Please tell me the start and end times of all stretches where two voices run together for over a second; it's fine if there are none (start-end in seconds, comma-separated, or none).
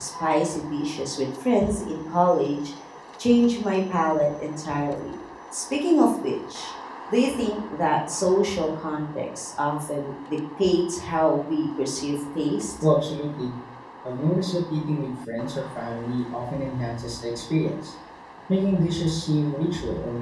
none